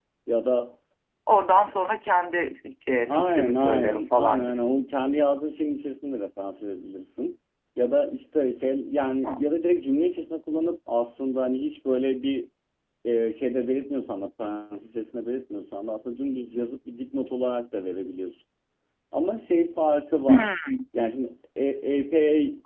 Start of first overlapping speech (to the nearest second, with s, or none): 3 s